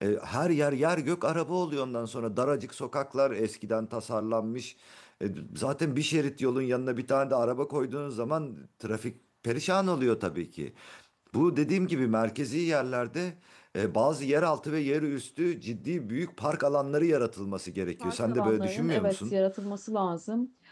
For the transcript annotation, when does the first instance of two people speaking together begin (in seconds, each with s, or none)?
18.0 s